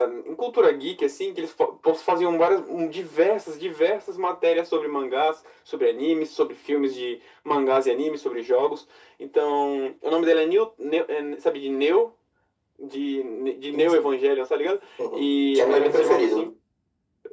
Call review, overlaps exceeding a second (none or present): present